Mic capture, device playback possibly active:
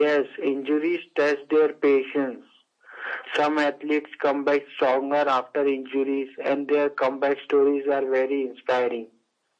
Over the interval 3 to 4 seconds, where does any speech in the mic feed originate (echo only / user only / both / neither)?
echo only